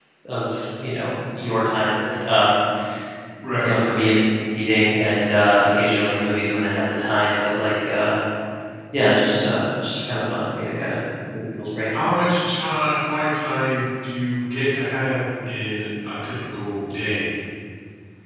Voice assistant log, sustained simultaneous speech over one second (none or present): none